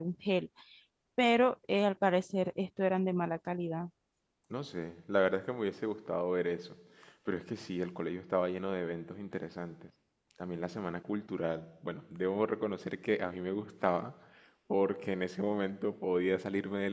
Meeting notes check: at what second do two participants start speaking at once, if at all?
none

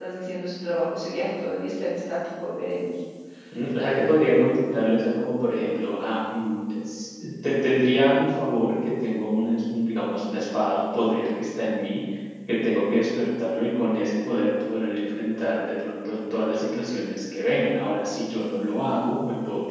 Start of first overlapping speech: none

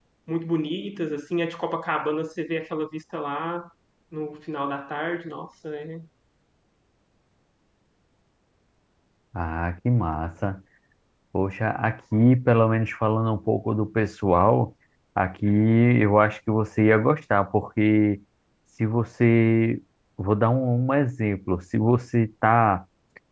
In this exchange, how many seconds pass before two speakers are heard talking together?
none

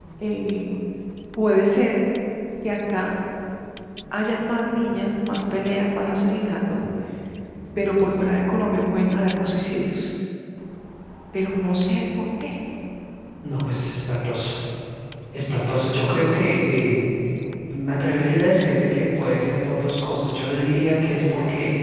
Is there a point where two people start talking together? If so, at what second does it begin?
none

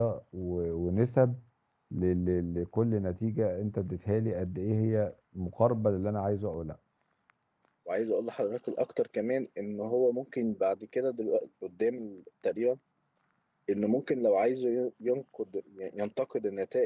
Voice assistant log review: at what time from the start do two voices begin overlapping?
none

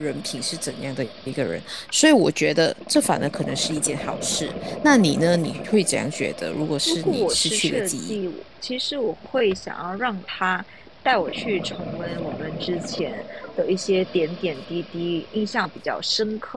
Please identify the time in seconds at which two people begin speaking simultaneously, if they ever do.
7 s

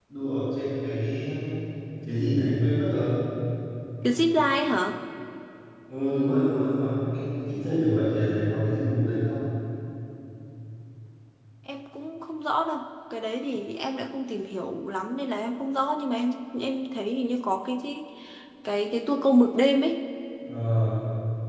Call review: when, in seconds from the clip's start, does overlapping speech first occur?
none

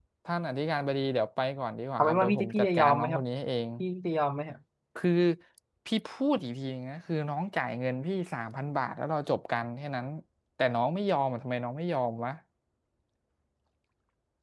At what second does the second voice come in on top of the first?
2 s

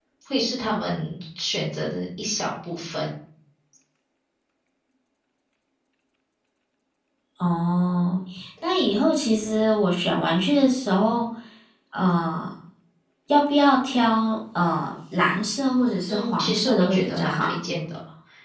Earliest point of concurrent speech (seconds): 16 s

